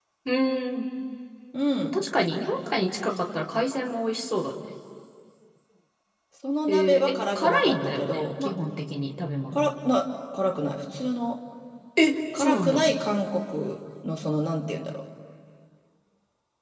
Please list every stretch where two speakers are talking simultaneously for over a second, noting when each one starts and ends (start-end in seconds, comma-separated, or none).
6.7-8.5